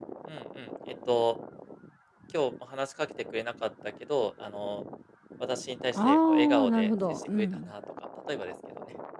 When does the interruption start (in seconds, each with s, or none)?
6.0 s